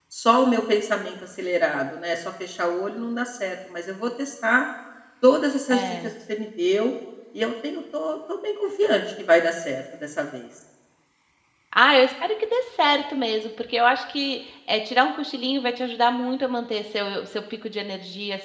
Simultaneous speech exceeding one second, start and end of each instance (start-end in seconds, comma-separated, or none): none